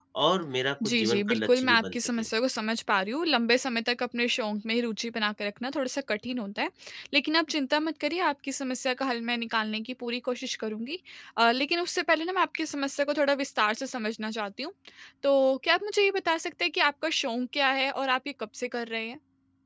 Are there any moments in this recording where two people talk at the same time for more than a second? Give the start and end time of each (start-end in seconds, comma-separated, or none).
0.8-2.2